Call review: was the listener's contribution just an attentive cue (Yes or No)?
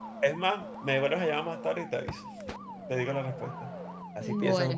No